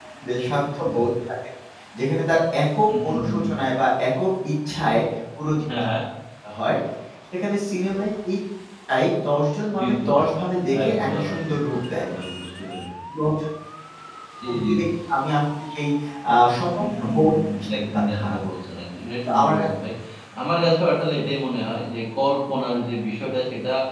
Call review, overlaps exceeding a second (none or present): present